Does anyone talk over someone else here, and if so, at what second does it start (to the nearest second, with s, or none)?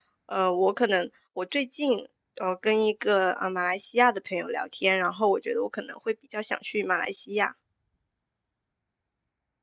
none